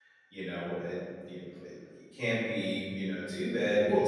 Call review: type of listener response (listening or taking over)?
listening